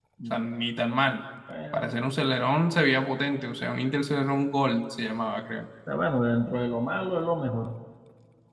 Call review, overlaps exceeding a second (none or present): none